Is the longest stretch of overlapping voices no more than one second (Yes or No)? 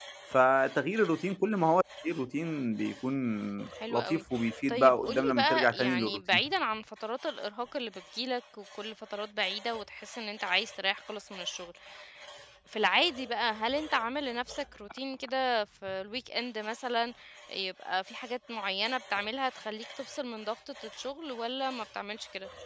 No